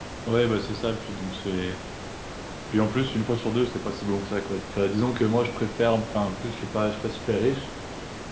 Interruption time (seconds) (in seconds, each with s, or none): none